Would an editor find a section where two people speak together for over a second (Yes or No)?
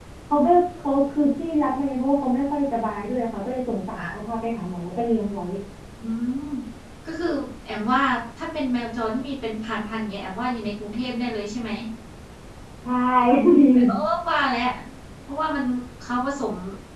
No